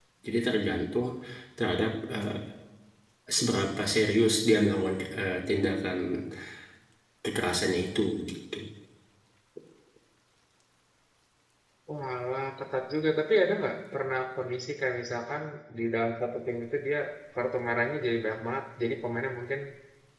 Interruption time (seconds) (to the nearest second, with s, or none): none